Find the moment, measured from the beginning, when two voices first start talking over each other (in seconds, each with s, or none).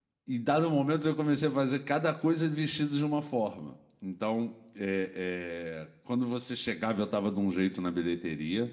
none